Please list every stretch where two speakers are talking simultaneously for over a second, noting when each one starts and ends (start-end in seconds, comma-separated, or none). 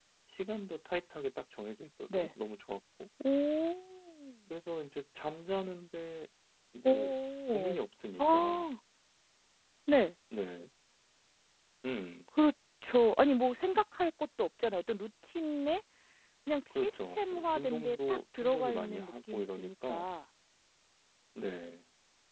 16.8-20.1